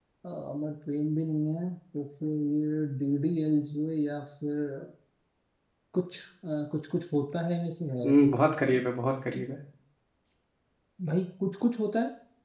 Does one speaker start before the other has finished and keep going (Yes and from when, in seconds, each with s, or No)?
No